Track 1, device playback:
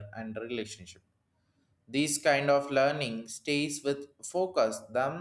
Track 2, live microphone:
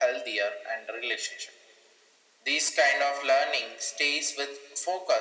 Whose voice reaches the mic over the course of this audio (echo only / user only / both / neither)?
echo only